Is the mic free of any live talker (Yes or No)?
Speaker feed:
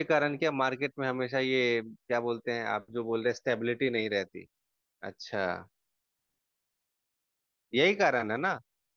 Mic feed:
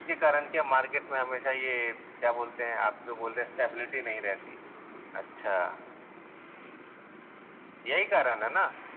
Yes